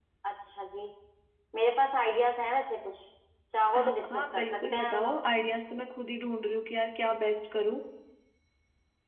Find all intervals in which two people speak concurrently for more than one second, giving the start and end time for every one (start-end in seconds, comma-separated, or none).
3.8-5.2